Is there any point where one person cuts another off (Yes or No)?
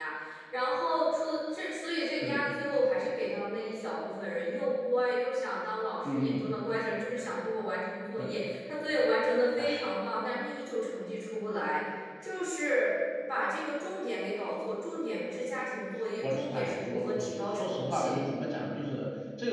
Yes